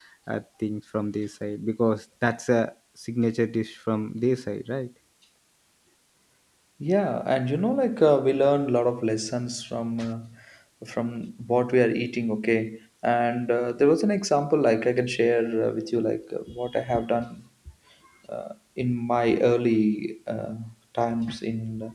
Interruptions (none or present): none